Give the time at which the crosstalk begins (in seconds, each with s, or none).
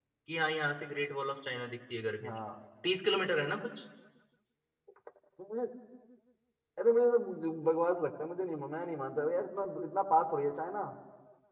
none